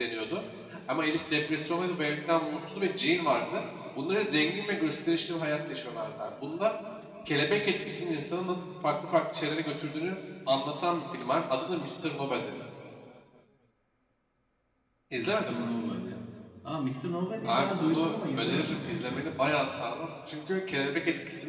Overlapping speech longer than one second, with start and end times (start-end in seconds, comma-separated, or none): 17.4-19.3